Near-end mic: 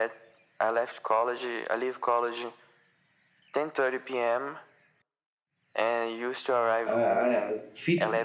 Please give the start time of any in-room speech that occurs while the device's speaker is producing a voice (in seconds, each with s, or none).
6.8 s